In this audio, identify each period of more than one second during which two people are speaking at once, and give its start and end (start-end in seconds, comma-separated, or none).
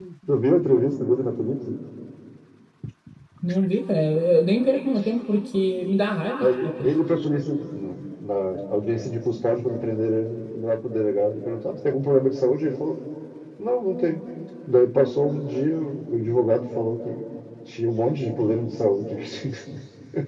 none